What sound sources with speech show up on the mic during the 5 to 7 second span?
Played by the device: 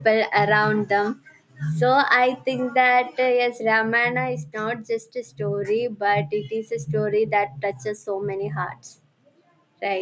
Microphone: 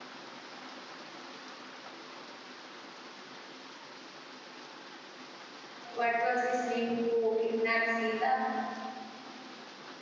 user only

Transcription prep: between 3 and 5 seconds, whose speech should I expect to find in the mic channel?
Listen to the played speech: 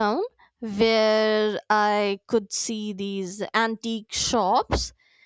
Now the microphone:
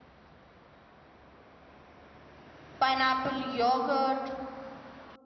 user only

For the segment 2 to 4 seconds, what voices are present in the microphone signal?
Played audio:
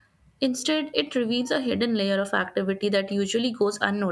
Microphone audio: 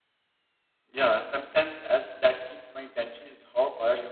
user only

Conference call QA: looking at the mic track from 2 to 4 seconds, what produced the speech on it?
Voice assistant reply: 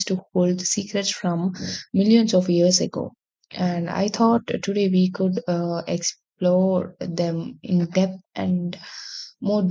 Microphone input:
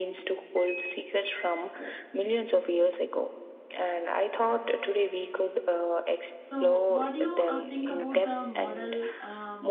echo only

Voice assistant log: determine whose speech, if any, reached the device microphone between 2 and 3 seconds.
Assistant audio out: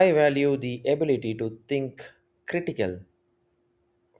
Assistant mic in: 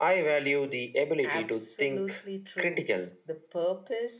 both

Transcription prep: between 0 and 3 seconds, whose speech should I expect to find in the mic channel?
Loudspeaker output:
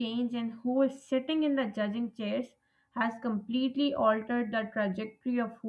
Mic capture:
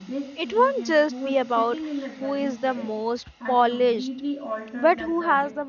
both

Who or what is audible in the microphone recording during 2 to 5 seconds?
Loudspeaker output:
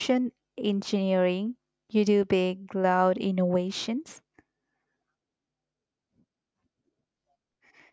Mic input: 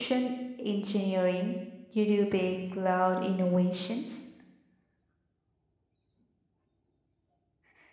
echo only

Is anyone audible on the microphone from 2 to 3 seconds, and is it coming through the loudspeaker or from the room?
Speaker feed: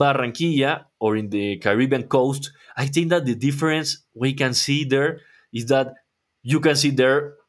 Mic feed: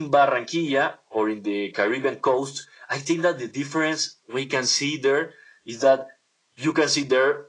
echo only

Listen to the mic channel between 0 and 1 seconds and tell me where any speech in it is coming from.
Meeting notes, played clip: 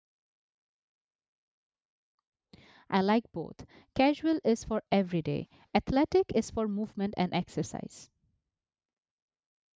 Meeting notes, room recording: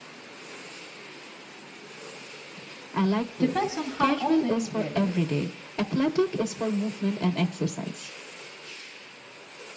neither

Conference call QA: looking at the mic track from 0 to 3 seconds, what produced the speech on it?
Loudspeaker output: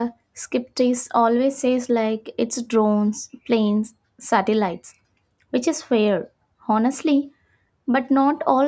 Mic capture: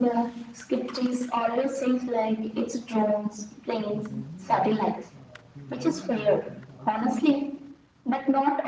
echo only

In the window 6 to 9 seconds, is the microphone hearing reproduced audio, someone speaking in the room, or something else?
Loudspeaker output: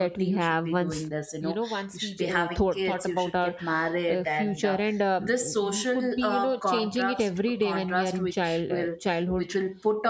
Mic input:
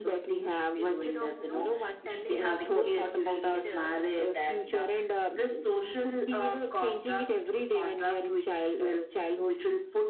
echo only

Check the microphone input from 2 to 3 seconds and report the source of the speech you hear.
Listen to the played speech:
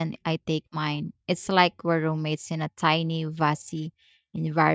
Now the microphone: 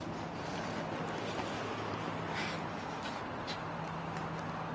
neither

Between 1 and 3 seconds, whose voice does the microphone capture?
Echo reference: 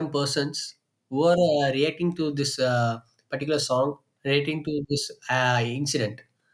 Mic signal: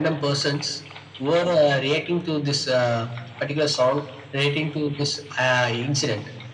echo only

